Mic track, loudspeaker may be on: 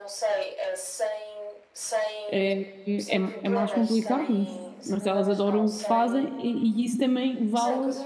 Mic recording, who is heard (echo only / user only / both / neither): both